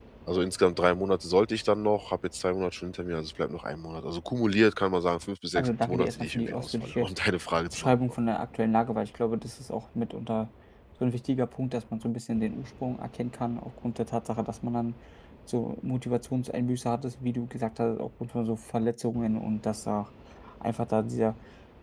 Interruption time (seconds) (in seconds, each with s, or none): 5.6 s